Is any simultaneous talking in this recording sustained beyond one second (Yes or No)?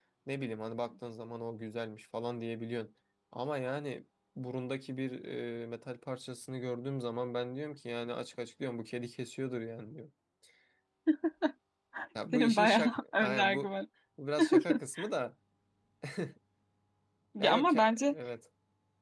Yes